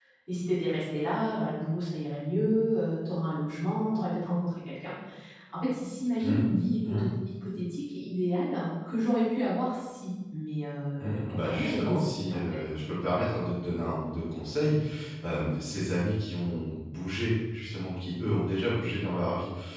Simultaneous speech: Yes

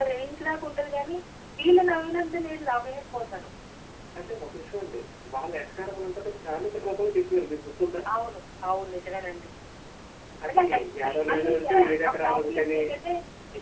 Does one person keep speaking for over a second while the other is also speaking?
Yes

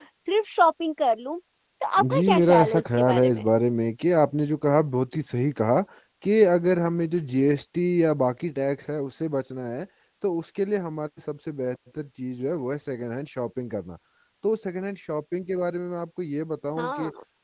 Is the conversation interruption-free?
No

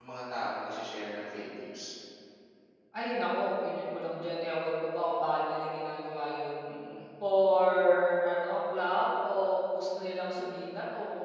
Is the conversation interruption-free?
Yes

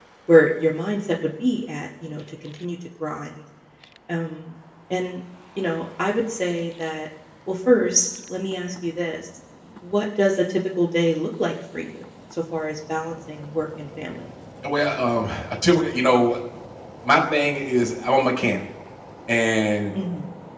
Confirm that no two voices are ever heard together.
Yes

